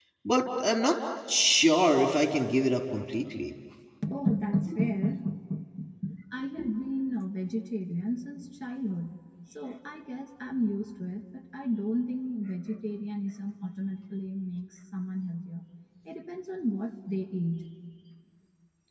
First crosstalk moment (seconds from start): none

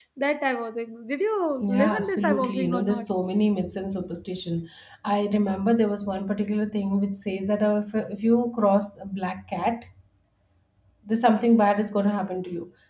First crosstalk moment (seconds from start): 1.6 s

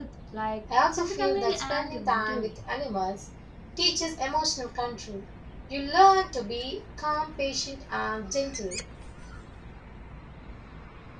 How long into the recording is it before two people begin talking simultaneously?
1.0 s

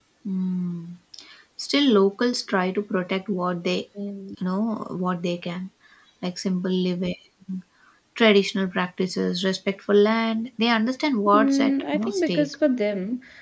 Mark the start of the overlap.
11.2 s

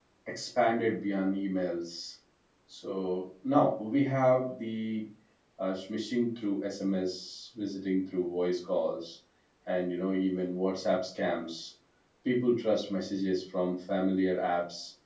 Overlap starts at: none

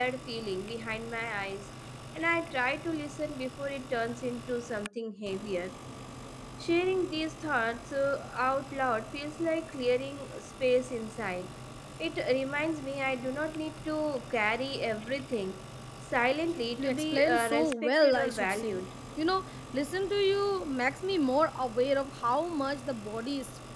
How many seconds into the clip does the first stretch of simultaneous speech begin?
16.8 s

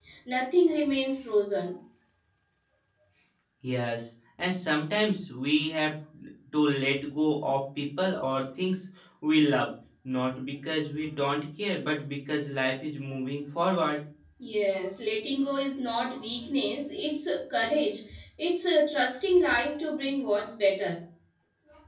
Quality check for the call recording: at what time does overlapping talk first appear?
none

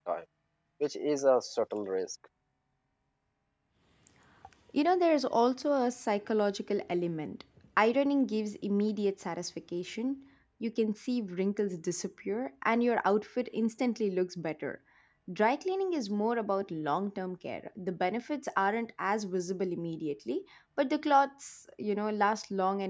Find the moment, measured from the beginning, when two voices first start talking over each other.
none

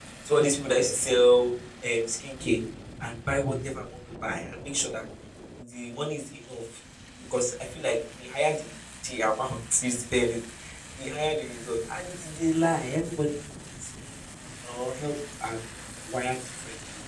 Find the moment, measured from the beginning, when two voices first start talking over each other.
none

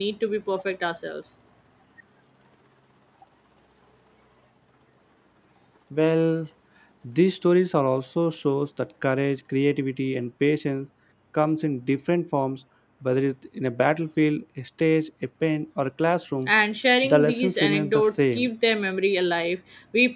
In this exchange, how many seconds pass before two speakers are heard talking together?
17.0 s

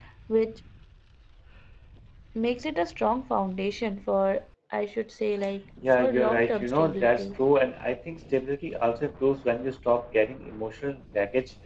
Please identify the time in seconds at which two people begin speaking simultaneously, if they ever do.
5.8 s

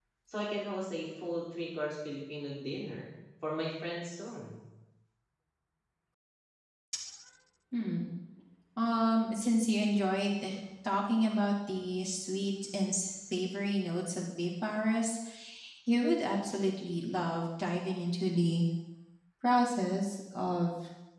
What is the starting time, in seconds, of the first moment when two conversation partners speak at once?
none

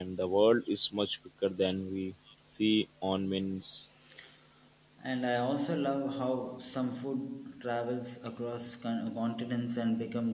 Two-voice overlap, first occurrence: none

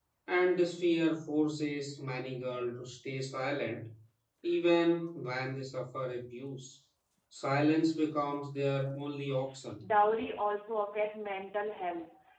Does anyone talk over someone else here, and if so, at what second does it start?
none

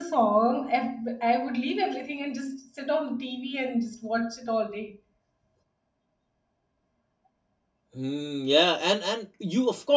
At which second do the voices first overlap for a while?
none

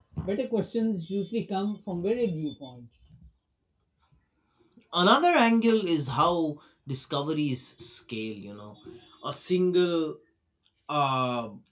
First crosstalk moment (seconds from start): none

